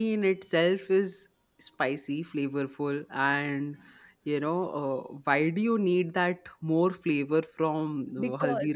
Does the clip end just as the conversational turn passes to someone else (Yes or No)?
Yes